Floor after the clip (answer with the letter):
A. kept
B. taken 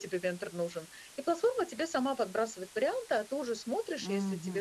A